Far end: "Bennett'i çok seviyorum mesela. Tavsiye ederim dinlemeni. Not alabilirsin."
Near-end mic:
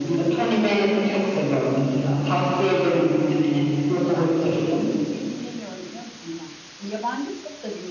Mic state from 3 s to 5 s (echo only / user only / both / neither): both